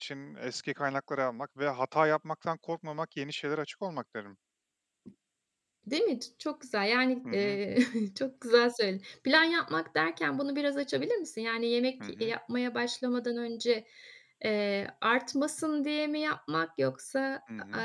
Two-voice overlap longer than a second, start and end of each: none

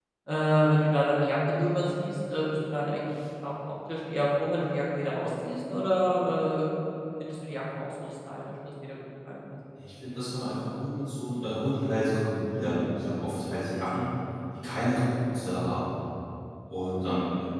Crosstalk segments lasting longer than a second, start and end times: none

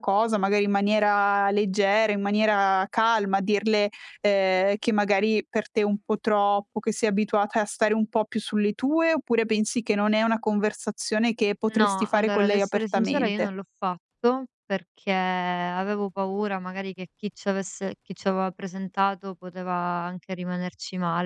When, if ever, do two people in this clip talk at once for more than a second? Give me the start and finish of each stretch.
11.7-13.5

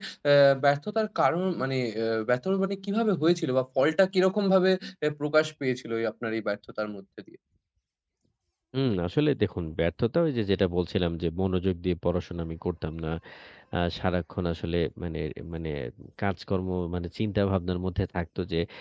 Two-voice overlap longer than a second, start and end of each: none

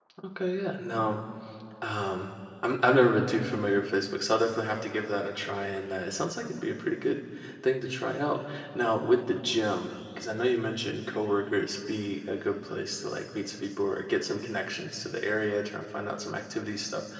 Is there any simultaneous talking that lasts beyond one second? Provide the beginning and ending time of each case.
none

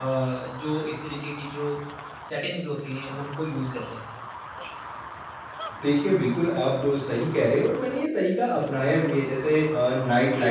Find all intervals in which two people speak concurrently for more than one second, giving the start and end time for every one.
none

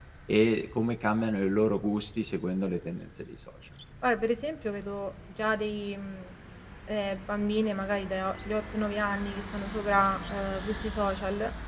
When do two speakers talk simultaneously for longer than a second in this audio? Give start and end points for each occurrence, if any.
none

